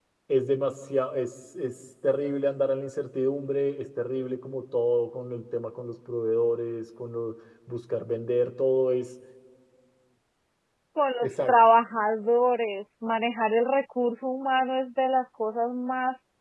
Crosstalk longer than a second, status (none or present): none